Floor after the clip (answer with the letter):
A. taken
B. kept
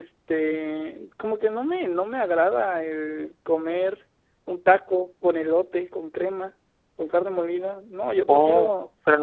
A